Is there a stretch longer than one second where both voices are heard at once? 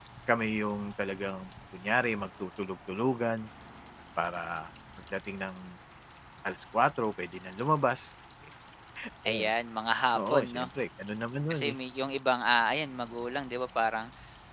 No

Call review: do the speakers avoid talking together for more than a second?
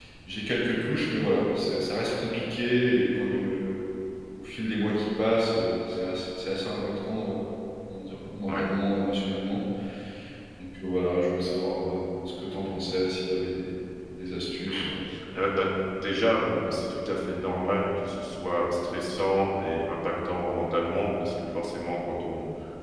Yes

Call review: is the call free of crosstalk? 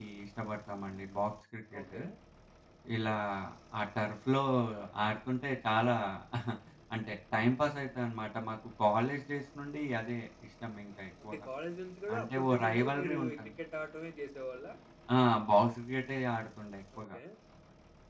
No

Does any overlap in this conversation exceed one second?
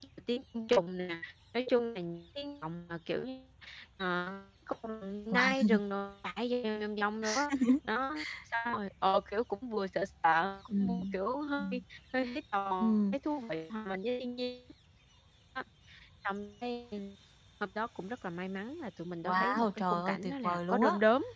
Yes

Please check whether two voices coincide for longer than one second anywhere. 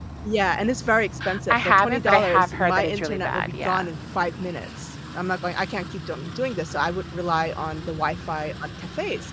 Yes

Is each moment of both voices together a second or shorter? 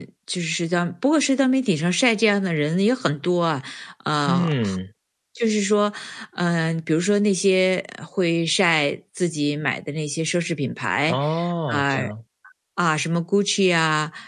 Yes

